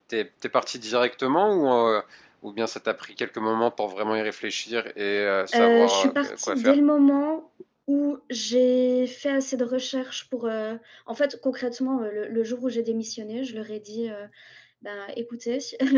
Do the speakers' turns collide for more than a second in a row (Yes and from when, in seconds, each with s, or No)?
Yes, from 5.6 s